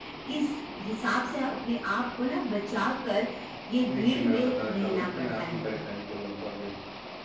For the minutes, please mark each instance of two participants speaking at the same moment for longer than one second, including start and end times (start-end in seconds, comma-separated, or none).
3.9-5.6